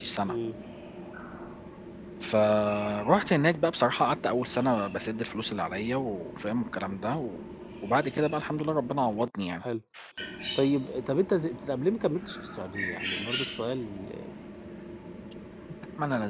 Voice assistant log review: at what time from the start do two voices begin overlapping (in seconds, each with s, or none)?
none